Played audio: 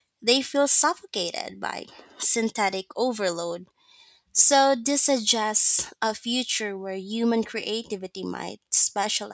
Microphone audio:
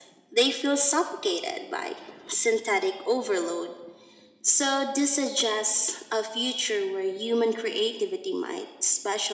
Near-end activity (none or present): none